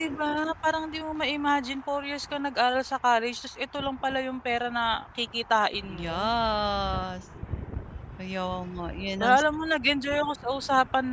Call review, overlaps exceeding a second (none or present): none